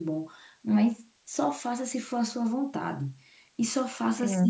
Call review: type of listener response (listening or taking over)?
listening